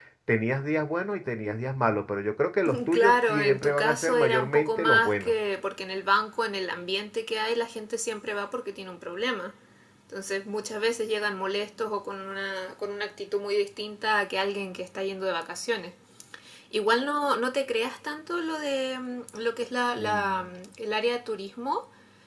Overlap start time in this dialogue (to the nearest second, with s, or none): 3 s